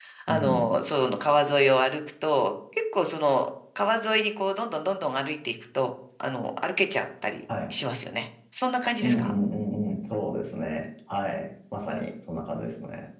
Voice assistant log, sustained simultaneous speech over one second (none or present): none